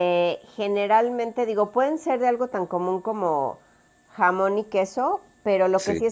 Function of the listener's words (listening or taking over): listening